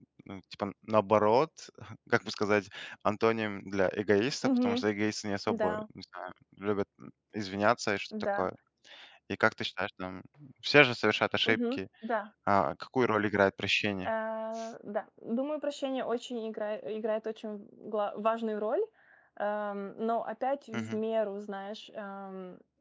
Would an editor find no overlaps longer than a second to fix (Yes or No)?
Yes